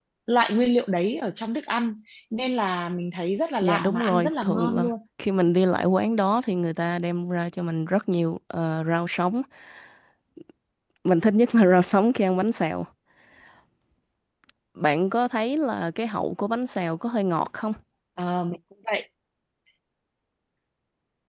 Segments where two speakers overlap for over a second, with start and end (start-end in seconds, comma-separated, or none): 3.6-4.9